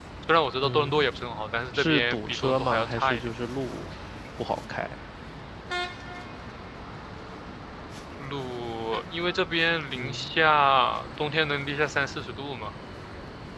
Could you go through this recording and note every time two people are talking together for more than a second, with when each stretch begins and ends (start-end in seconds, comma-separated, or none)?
1.7-3.2